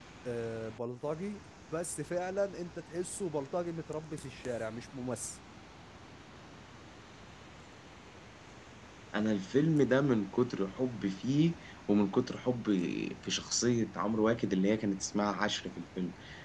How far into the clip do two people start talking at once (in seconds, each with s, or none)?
none